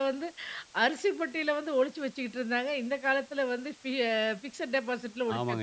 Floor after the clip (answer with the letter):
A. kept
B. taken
B